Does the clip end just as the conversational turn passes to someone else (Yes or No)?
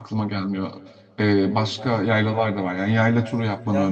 Yes